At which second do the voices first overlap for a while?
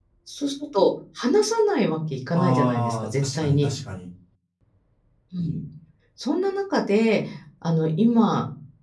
2.3 s

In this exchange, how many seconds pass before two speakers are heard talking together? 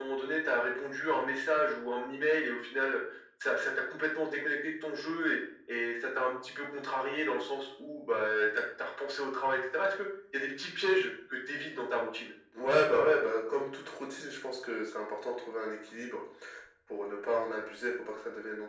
none

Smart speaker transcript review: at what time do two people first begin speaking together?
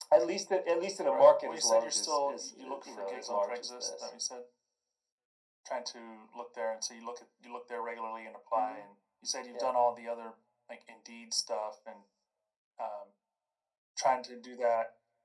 1.1 s

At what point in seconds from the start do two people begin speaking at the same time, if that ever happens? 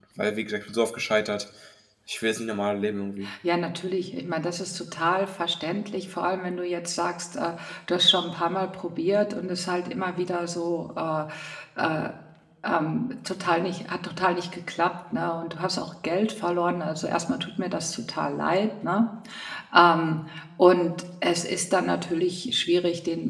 none

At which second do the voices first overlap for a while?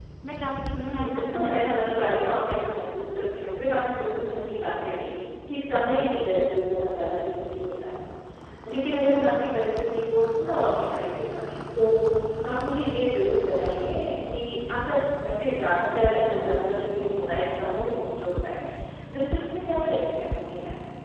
0.8 s

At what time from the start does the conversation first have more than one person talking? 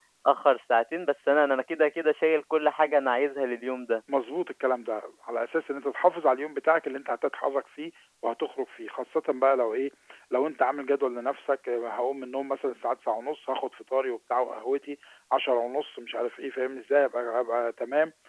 none

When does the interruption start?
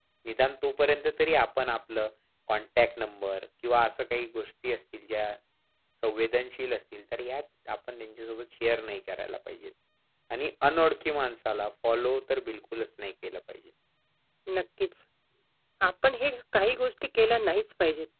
none

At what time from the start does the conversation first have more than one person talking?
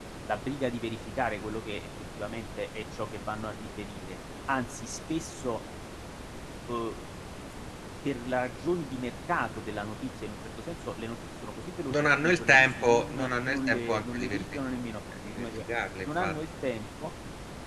11.9 s

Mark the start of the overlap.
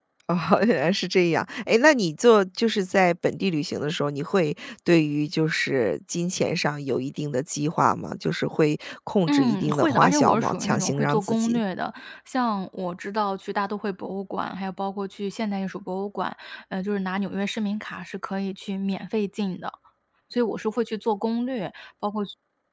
9.3 s

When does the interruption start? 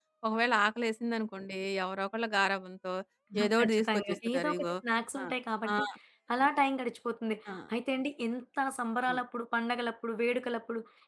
3.4 s

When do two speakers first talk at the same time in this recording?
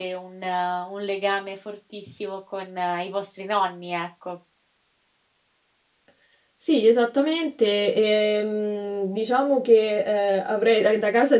none

